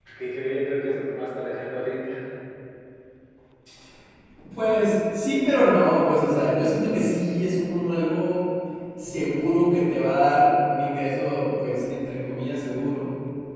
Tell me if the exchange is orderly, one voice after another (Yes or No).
Yes